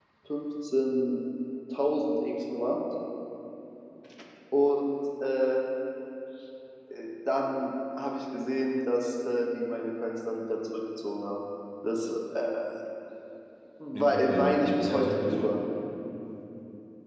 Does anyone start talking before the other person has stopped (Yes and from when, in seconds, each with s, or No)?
Yes, from 13.9 s